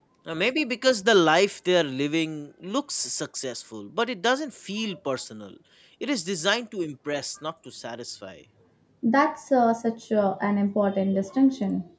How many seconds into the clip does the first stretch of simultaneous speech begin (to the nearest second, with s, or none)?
none